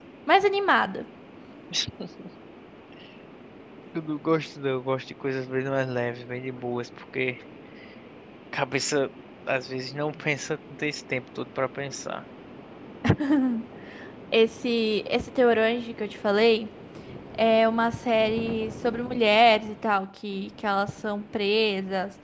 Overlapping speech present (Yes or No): No